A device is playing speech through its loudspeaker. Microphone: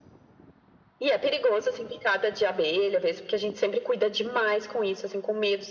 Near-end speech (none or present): none